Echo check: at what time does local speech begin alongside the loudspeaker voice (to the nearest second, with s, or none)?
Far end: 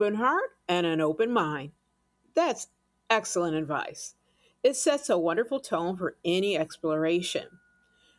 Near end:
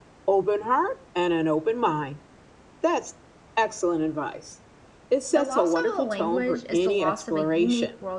5 s